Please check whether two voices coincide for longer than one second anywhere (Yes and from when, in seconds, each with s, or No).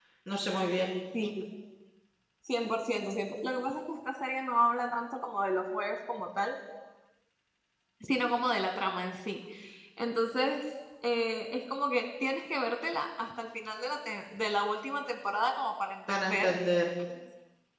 No